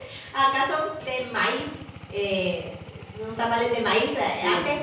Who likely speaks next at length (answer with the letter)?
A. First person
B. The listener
A